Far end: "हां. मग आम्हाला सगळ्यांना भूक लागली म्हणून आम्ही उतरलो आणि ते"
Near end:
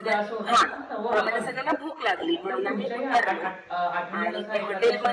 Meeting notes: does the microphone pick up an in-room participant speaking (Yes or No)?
Yes